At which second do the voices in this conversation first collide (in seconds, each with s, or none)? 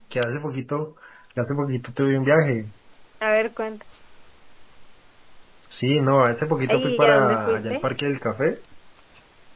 6.6 s